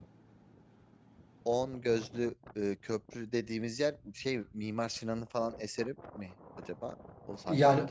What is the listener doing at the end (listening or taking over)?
taking over